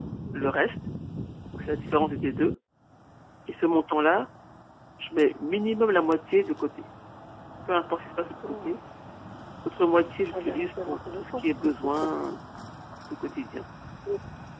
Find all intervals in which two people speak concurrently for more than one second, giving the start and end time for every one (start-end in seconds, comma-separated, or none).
10.3-12.2